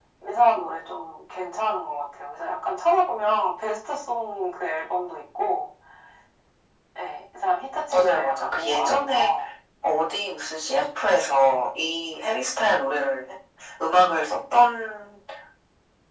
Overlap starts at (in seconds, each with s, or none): 7.9 s